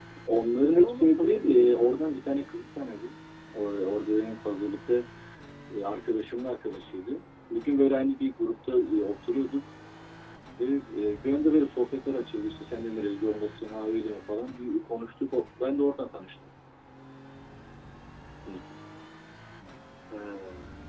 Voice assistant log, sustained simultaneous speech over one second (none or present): present